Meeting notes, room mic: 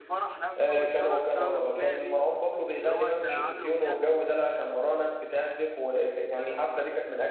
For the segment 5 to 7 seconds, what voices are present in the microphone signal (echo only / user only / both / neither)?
user only